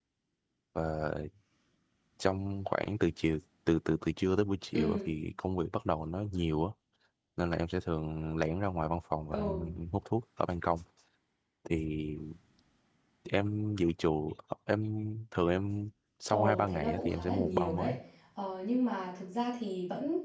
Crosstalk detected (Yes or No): Yes